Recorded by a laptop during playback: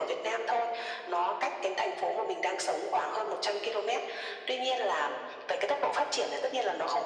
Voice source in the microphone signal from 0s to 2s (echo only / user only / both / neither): echo only